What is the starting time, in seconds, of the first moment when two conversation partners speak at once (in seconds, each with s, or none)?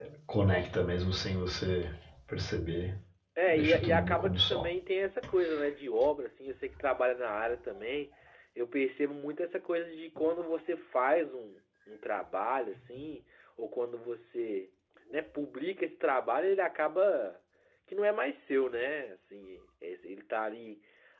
3.5 s